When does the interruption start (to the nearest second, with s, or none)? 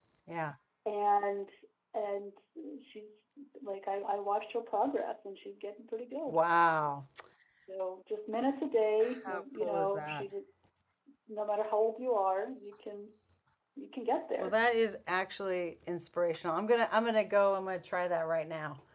9 s